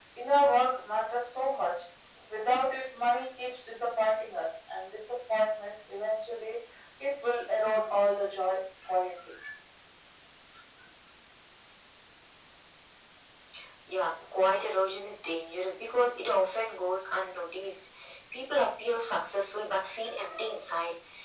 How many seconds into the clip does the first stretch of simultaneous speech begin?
none

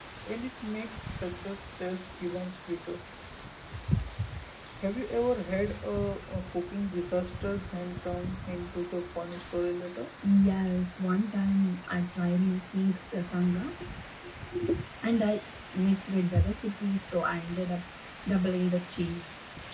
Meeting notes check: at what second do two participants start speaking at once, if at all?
none

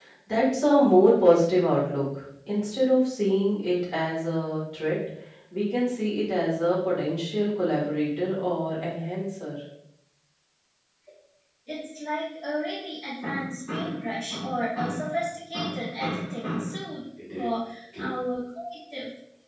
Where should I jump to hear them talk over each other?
none

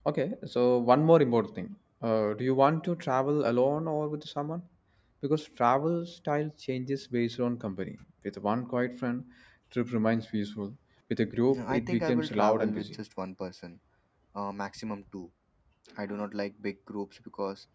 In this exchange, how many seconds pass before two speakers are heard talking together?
11.5 s

